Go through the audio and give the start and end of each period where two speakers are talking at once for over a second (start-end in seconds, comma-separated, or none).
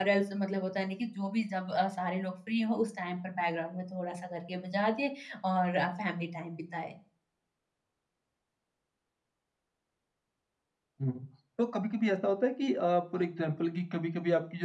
none